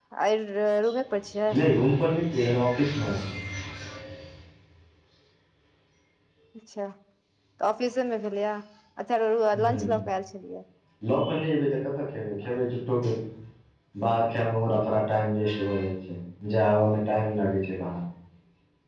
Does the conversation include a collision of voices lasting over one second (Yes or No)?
No